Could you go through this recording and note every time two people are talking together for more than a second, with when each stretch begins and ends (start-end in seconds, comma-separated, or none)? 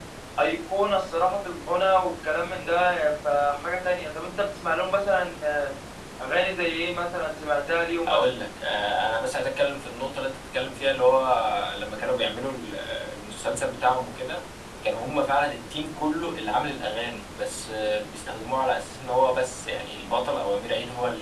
none